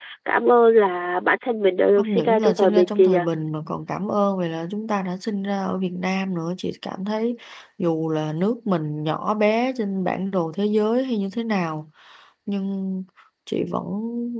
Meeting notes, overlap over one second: present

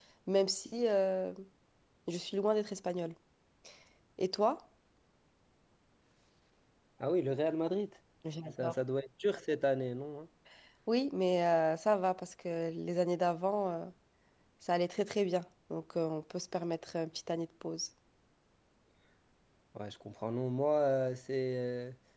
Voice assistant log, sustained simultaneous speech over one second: none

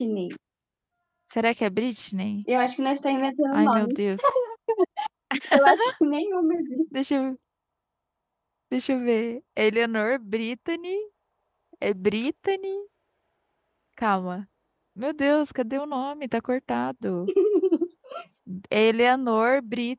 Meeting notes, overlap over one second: none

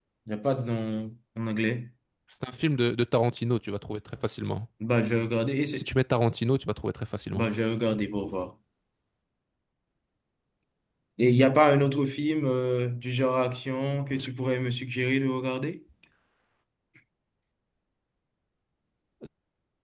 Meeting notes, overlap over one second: none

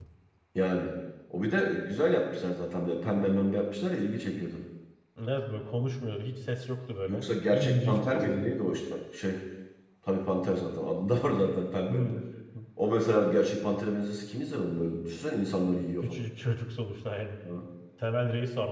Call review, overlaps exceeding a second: present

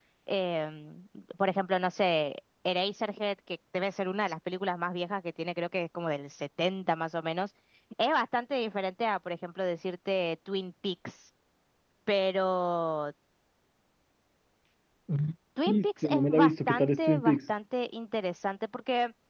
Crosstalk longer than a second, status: present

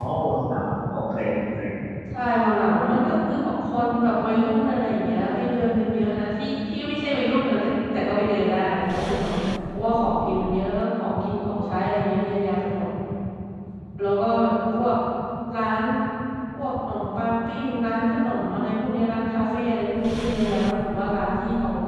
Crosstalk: none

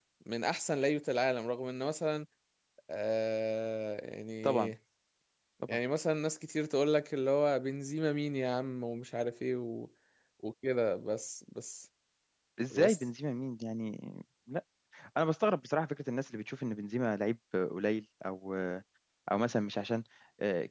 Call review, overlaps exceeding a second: none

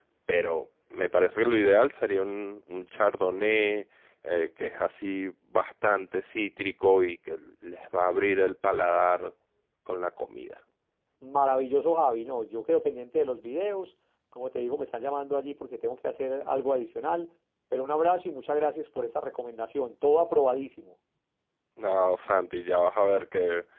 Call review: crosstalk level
none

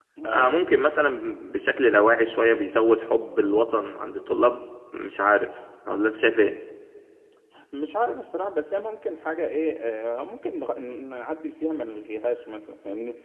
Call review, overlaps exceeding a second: none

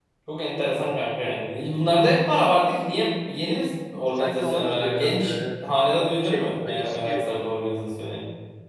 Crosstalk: present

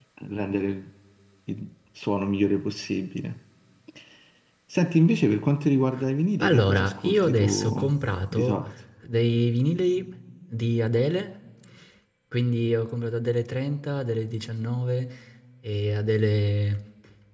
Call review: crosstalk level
present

